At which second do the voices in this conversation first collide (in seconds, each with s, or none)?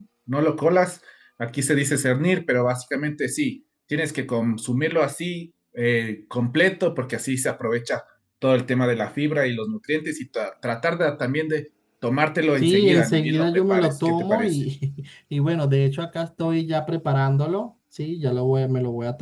12.6 s